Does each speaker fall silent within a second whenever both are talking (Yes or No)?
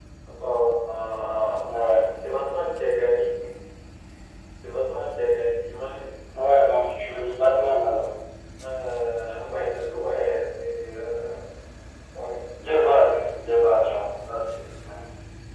No